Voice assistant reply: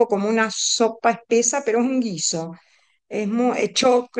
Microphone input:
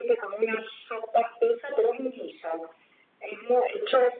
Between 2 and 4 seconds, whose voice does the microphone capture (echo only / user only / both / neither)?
echo only